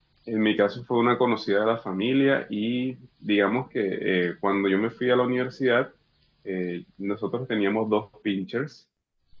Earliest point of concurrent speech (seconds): none

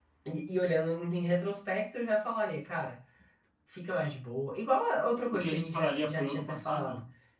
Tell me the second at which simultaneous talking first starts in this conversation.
5 s

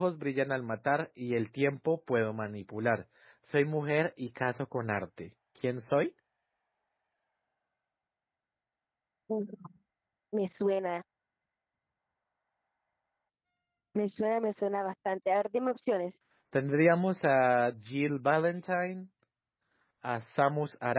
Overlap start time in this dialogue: none

